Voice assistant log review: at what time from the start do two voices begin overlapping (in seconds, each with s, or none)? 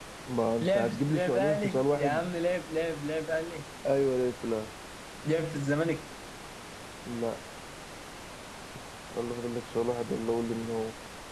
0.6 s